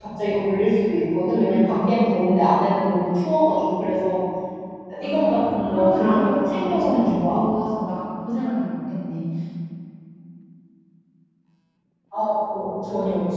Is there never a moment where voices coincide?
No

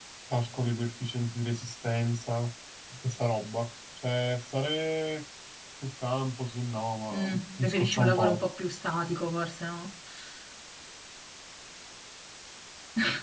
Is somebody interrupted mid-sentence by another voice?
Yes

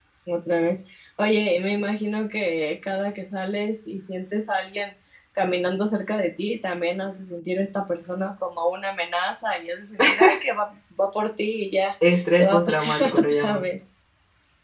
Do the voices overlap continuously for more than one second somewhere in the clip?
Yes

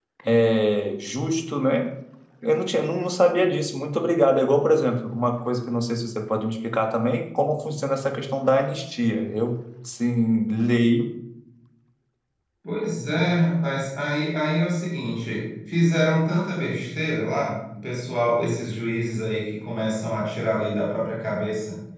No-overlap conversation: Yes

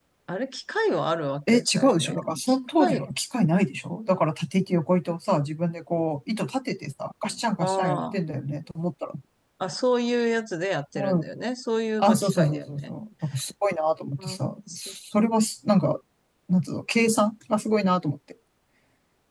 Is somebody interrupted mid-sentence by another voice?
Yes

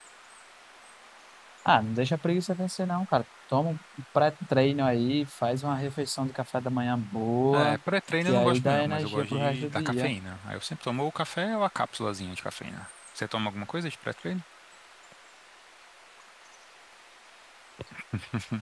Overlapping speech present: Yes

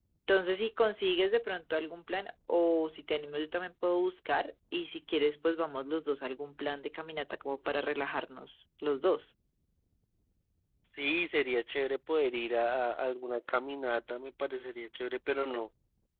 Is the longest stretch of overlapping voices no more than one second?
Yes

